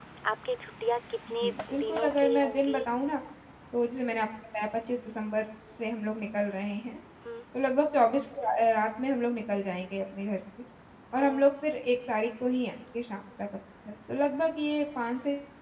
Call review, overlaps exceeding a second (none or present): present